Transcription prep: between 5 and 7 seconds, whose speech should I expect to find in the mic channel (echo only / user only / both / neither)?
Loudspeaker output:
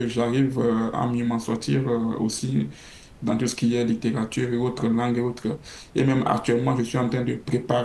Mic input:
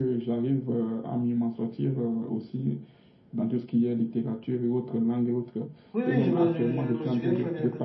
both